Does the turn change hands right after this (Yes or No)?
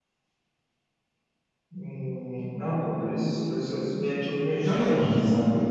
Yes